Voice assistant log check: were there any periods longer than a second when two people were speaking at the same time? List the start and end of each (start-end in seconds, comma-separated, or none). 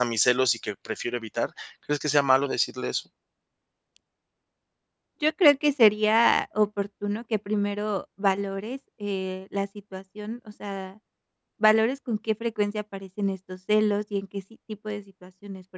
none